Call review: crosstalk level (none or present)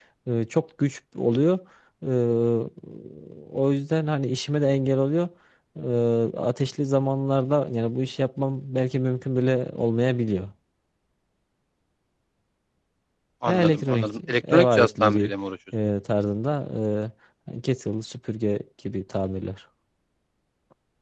present